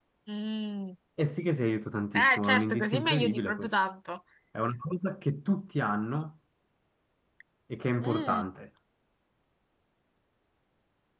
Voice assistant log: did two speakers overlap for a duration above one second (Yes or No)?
Yes